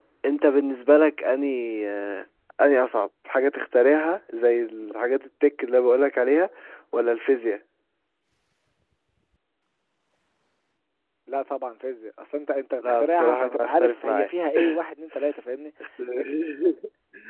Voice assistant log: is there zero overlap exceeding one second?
No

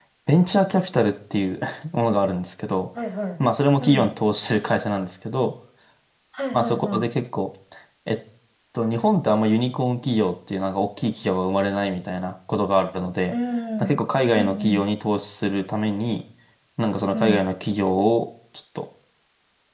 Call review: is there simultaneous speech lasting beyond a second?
No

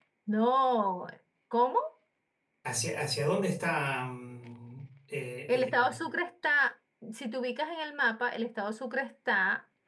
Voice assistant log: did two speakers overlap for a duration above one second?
No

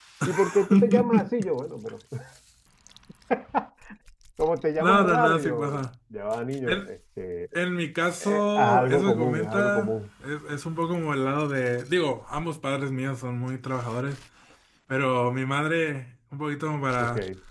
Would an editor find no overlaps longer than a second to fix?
No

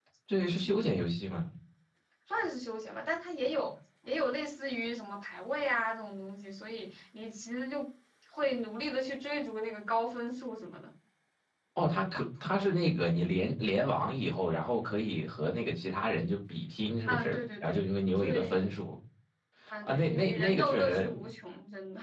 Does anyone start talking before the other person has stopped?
Yes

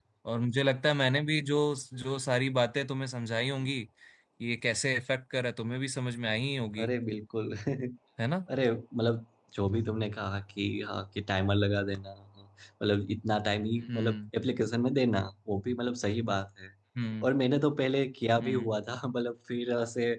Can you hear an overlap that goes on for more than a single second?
No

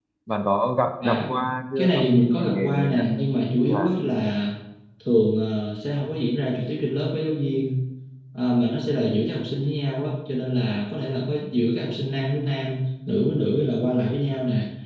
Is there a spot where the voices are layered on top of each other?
Yes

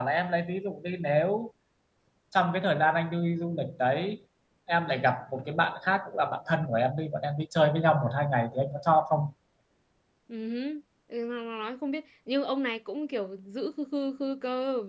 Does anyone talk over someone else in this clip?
No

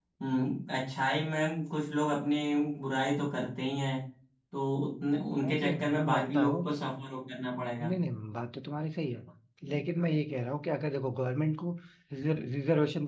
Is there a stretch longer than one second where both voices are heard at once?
Yes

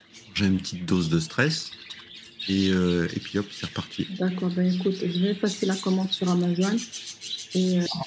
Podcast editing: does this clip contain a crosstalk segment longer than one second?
No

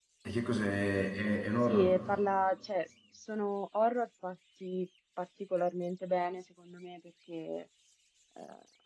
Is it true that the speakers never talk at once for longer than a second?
Yes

